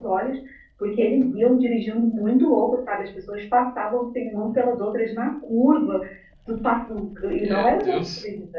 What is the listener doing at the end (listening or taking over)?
listening